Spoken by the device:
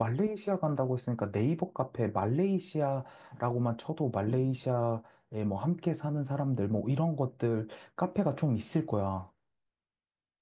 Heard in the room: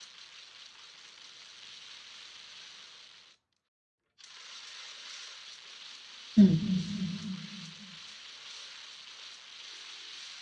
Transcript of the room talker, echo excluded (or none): 음.